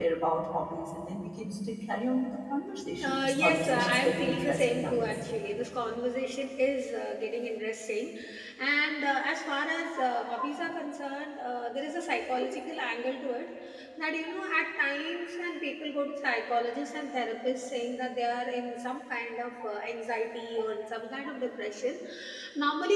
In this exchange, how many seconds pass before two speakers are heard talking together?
3.0 s

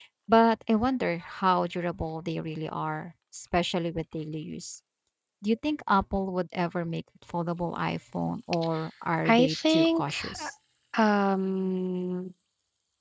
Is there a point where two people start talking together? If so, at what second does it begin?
9.2 s

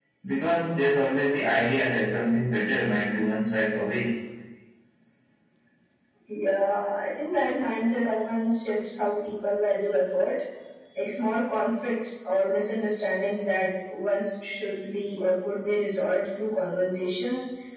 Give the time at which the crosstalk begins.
none

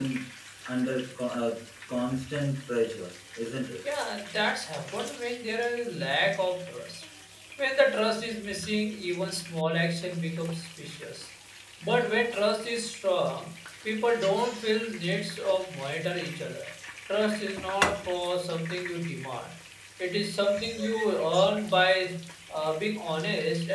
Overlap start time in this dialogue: none

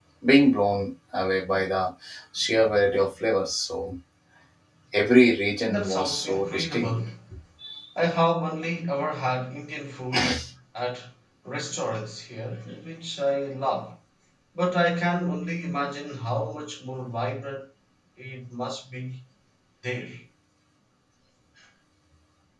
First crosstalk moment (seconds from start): 5.6 s

